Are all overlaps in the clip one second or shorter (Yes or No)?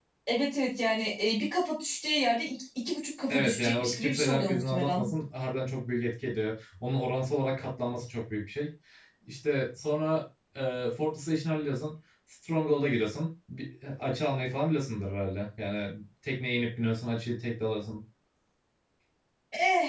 No